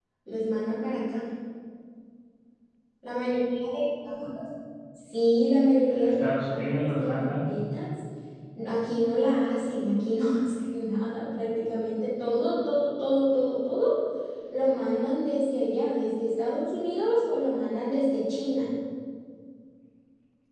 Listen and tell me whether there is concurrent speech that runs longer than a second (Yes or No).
Yes